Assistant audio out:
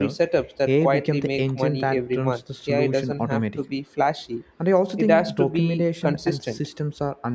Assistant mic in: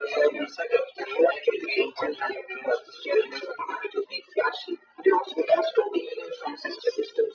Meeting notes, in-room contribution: none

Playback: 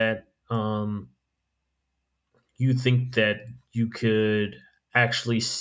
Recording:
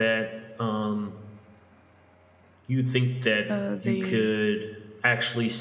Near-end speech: present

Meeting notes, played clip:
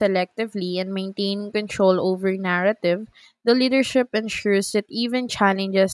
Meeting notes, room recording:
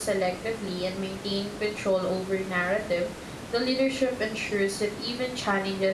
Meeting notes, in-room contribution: none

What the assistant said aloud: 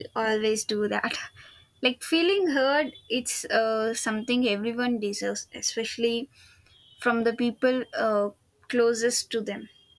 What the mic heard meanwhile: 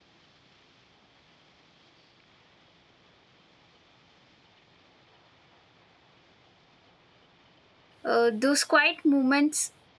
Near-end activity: present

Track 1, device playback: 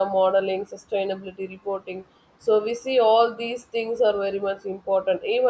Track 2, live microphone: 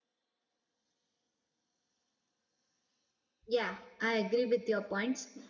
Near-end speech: present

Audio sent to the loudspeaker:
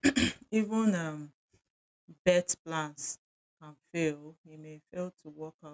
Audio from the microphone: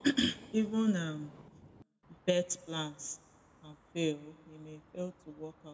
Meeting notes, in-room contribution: none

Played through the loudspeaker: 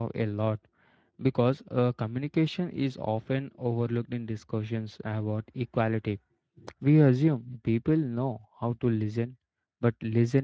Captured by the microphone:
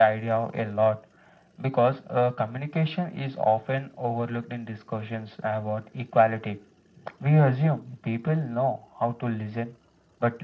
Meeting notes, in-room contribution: none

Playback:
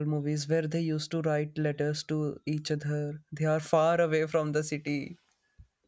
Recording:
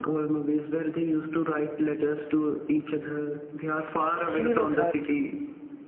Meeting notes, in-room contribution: present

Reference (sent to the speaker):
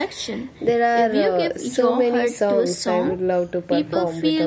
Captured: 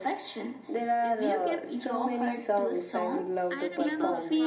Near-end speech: present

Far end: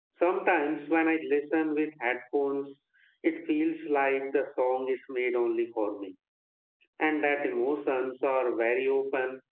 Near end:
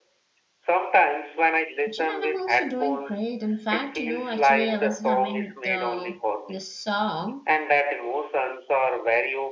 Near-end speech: present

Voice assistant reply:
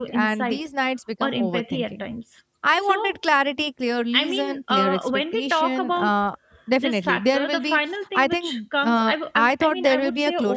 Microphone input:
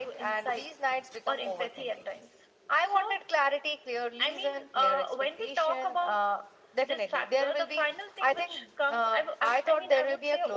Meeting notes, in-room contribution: none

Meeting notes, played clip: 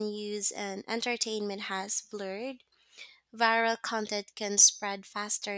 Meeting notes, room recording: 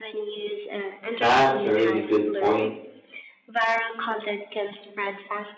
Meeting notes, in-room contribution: present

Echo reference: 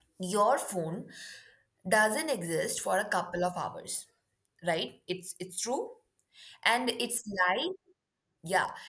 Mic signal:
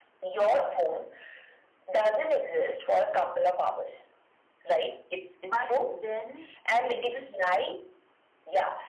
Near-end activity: present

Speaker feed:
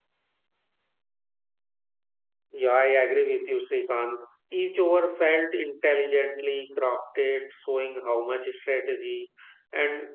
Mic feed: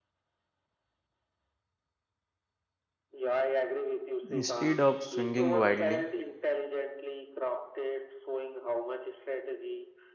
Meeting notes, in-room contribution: present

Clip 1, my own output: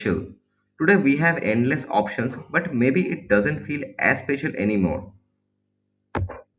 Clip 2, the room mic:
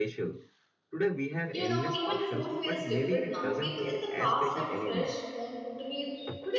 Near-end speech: present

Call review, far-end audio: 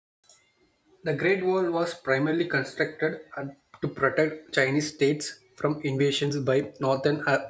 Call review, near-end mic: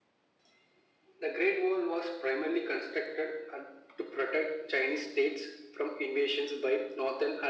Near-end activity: none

